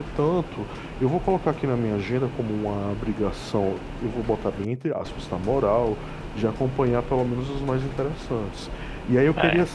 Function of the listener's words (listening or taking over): listening